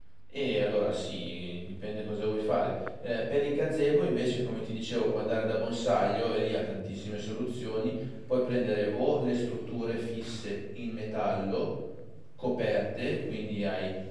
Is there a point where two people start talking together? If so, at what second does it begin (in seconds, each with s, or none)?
none